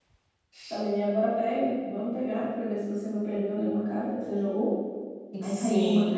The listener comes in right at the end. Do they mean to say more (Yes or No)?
No